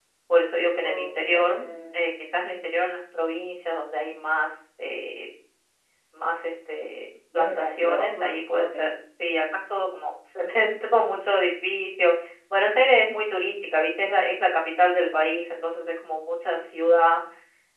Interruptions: present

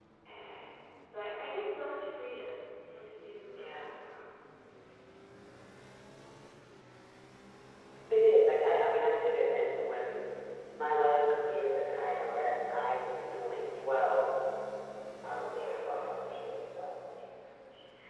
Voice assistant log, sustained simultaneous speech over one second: present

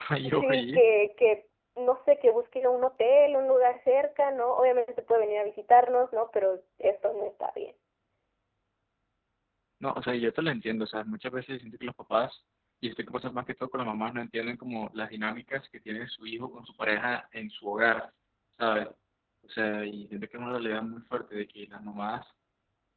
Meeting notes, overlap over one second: none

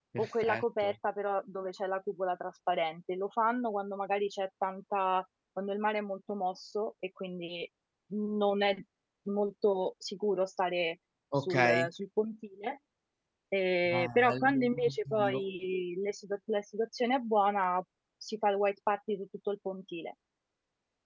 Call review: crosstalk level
present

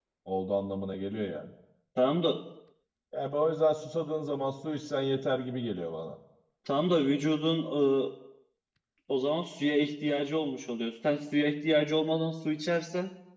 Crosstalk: none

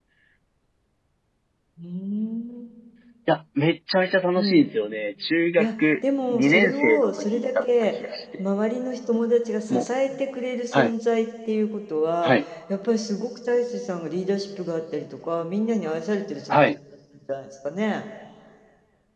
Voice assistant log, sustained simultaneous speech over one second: present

